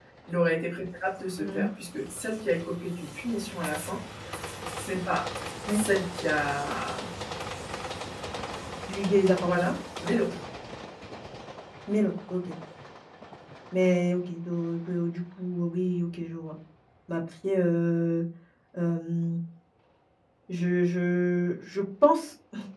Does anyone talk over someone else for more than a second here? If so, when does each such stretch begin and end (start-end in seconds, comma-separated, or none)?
none